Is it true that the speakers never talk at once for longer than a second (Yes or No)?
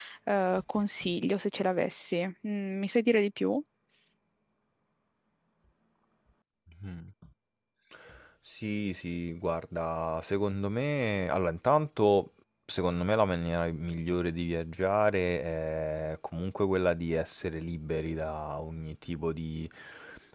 Yes